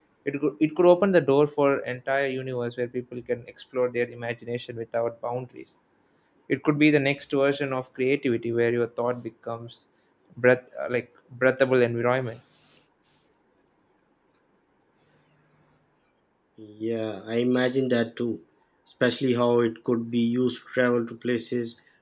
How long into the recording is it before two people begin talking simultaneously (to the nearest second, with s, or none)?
none